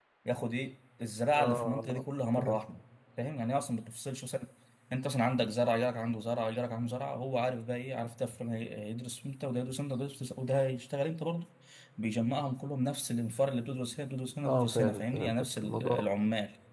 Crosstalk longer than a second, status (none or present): present